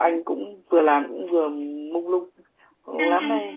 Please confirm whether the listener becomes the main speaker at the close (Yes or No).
Yes